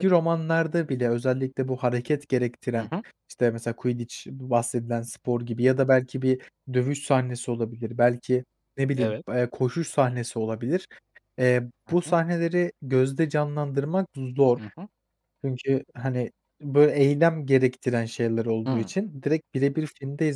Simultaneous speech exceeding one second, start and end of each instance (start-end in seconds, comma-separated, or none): none